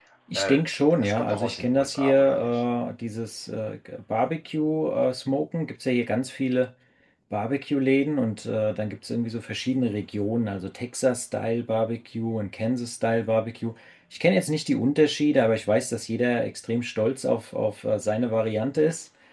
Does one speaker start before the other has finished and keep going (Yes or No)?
Yes